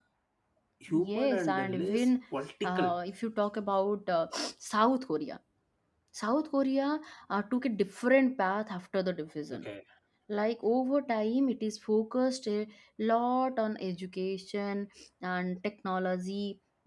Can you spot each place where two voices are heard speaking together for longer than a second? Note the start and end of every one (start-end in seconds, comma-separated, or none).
0.9-2.1